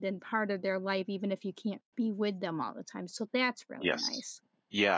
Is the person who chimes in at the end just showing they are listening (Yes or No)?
No